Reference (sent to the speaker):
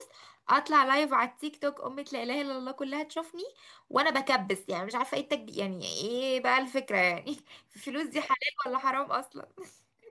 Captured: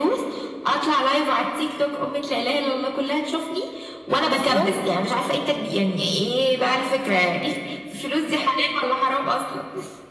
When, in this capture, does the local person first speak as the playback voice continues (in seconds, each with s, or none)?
4.1 s